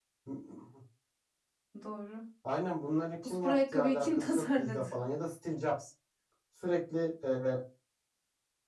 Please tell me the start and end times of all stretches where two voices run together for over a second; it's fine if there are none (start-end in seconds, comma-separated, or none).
3.2-4.8